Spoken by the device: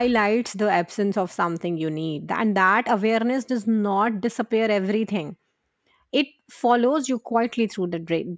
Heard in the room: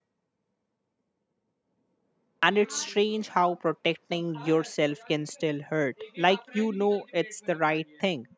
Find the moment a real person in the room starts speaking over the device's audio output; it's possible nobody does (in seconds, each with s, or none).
2.4 s